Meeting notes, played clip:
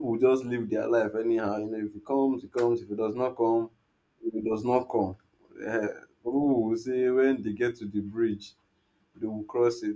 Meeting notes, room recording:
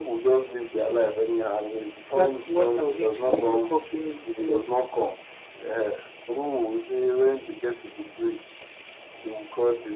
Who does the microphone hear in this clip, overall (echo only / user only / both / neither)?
both